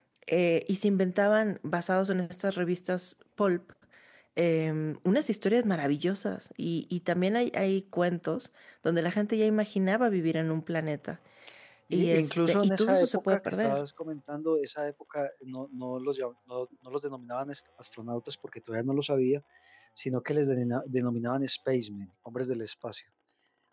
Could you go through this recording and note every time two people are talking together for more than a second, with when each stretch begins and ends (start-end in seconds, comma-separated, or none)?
11.9-13.8